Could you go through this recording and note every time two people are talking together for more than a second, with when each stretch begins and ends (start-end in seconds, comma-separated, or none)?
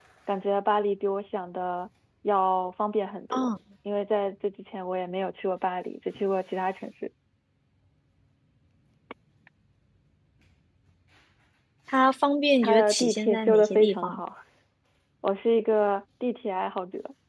12.6-14.2